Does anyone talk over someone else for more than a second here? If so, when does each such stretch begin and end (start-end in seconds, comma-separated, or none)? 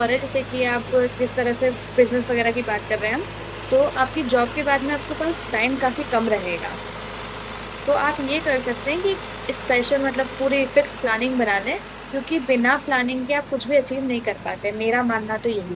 none